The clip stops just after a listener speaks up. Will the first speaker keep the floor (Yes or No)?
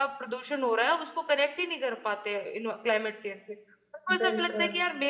Yes